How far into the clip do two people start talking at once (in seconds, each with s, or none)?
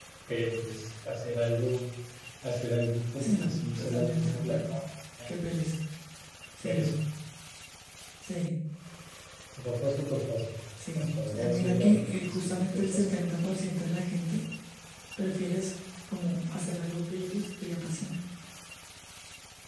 3.2 s